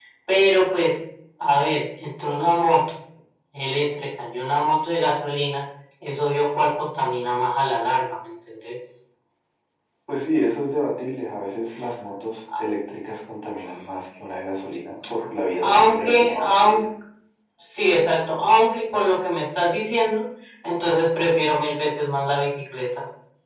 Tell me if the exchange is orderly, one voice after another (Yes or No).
No